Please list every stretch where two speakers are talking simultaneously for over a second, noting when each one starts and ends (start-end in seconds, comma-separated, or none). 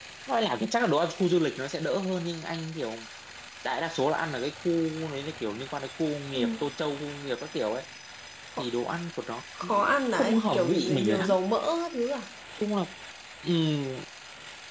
9.6-11.3